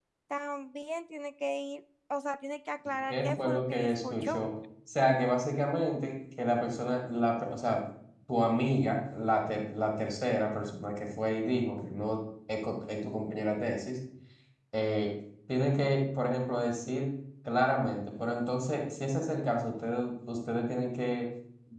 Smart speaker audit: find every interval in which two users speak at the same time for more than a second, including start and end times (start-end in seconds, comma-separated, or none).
3.1-4.4